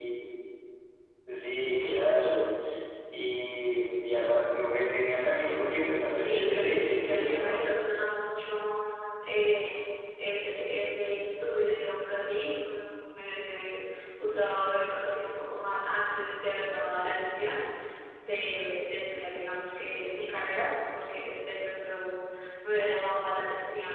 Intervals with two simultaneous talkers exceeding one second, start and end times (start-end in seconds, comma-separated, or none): 6.2-7.6